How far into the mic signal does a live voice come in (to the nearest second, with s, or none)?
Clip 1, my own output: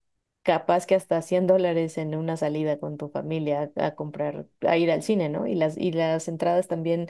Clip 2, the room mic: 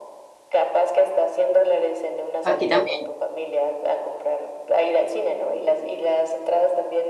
2 s